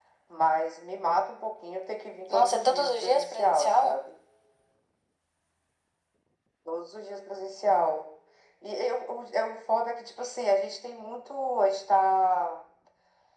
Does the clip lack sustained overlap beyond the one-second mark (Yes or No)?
No